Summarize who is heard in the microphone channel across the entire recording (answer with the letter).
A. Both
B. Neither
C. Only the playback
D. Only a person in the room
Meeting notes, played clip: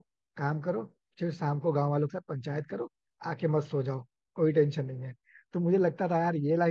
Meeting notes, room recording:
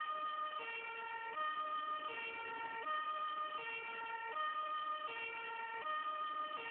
B